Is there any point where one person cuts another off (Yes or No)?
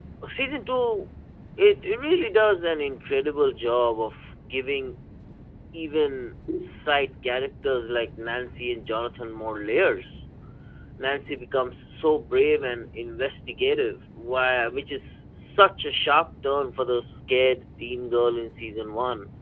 No